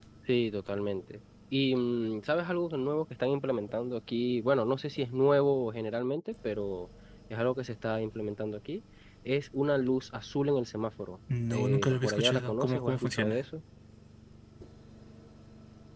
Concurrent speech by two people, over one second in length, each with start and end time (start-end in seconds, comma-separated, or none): 11.5-13.4